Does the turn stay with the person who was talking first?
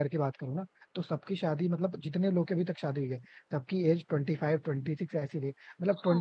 Yes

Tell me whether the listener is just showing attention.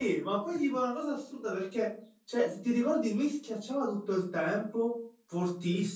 Yes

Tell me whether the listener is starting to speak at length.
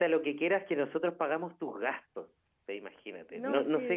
No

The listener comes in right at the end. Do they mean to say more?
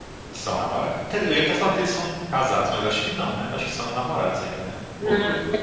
Yes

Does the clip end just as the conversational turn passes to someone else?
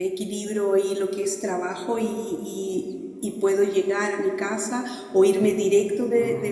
No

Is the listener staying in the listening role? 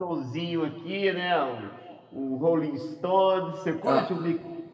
Yes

